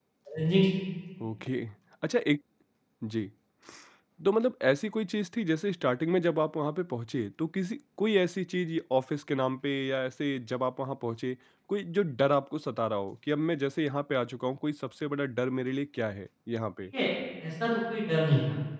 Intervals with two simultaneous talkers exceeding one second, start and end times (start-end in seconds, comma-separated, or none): none